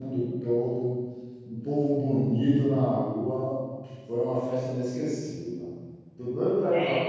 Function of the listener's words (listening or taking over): taking over